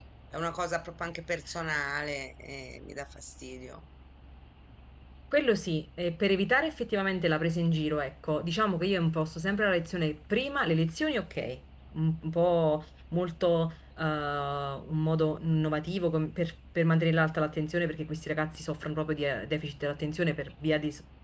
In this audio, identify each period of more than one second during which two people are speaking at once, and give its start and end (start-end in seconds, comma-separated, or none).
none